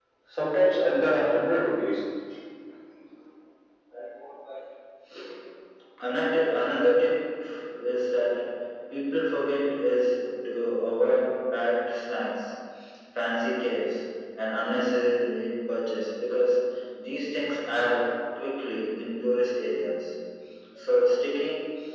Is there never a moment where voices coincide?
Yes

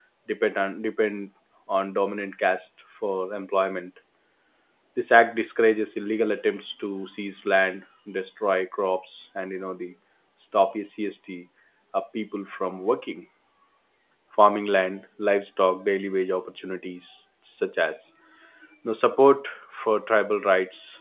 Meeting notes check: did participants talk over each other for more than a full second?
No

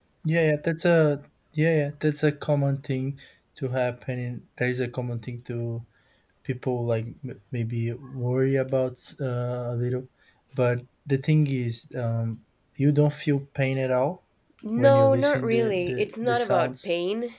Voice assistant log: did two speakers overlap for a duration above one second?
Yes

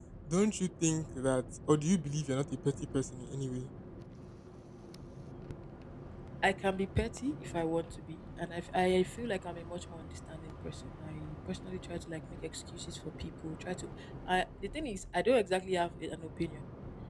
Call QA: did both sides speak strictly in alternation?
Yes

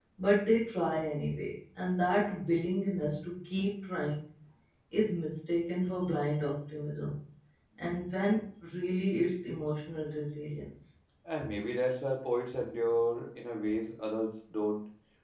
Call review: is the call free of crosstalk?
Yes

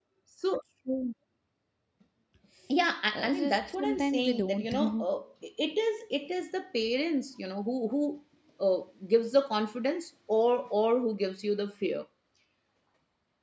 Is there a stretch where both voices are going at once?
Yes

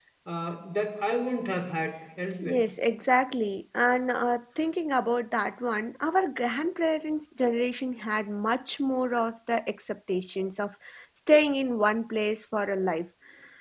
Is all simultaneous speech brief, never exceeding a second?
Yes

